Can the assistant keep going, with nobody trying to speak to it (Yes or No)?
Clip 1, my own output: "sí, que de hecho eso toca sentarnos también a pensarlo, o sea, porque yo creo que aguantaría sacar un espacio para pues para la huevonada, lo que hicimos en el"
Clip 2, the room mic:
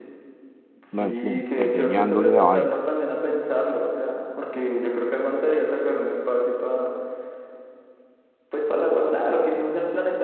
No